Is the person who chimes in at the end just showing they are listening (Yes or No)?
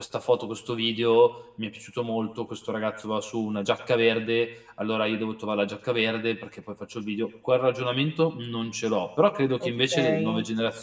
Yes